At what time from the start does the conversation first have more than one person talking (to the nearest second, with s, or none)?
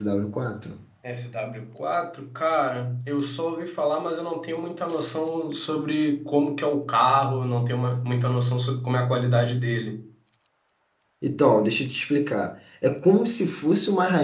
none